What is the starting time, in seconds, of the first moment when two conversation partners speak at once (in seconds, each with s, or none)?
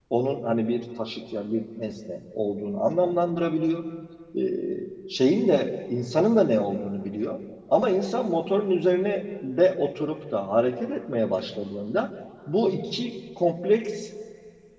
none